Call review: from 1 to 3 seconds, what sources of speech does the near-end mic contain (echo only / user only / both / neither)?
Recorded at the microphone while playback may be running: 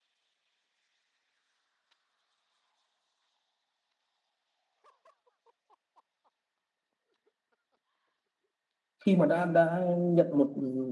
neither